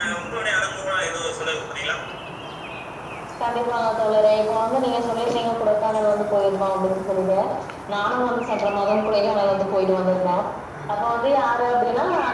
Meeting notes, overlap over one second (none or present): none